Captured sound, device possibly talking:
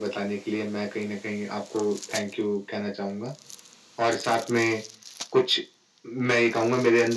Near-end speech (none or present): none